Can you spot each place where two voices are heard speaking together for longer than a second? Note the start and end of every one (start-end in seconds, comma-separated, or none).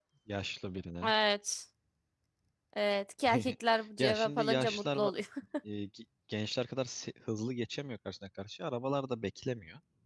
4.0-5.2